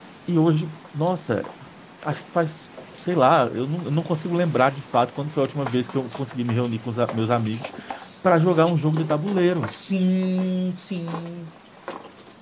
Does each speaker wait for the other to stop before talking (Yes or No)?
Yes